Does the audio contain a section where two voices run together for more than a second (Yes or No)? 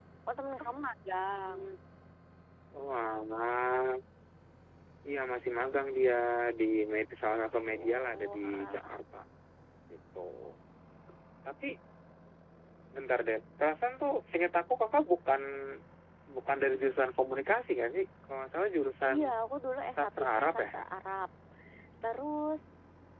Yes